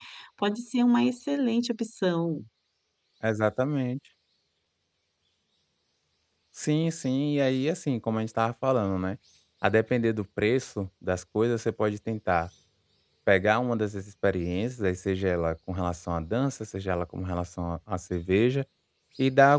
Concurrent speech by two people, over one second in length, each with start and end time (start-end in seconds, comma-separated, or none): none